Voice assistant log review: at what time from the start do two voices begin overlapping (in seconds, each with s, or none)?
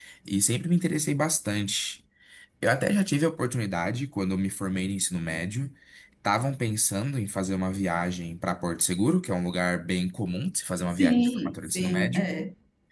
10.9 s